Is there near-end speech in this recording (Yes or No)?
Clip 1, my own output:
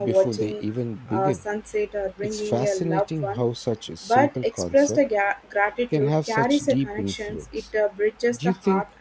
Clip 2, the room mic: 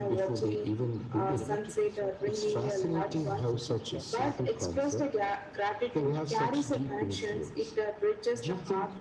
Yes